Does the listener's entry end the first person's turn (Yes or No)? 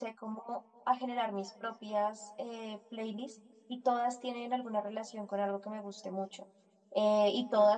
No